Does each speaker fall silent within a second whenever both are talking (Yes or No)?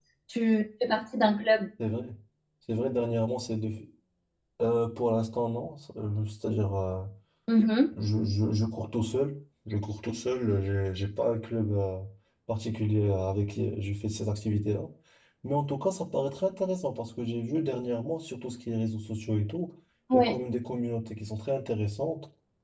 Yes